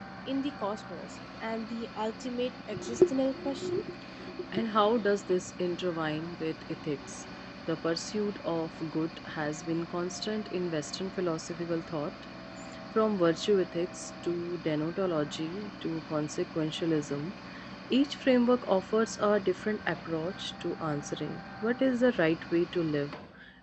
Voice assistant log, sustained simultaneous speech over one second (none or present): none